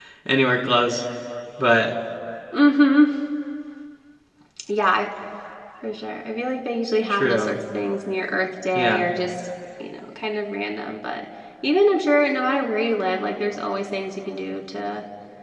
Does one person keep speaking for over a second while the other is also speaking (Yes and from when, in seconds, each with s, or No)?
No